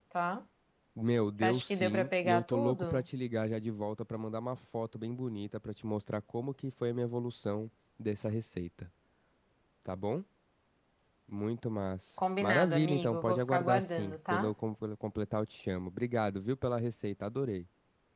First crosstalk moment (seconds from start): 1 s

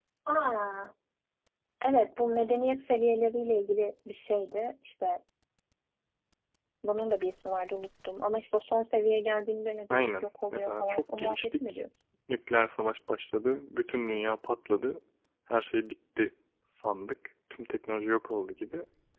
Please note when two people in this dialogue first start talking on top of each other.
10 s

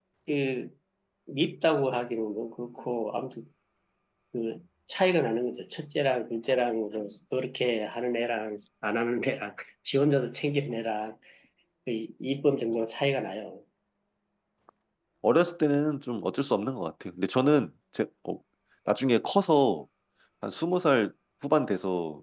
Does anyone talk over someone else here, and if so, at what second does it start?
none

